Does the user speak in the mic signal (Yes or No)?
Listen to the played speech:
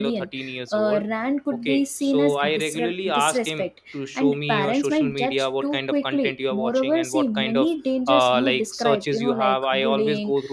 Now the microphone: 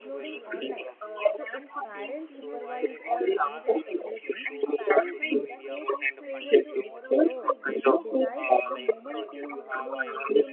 Yes